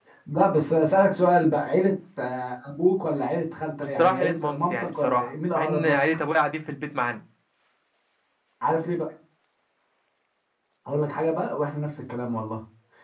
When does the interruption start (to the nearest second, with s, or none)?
4 s